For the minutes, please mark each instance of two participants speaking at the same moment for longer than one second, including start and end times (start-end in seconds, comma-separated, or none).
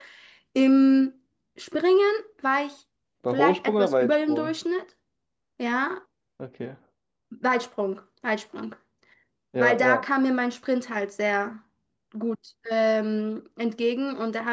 3.3-4.5